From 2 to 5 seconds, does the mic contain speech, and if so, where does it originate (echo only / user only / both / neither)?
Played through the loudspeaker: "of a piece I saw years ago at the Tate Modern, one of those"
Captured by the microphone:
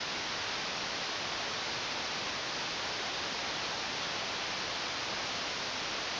neither